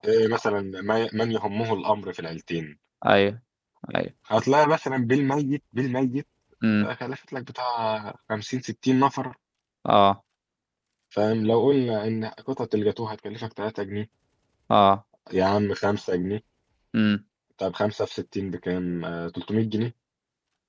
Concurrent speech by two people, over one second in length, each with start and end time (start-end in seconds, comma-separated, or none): none